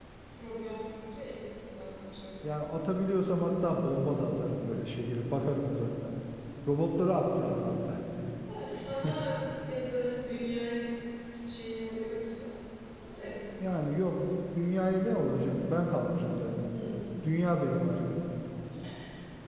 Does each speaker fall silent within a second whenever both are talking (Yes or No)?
Yes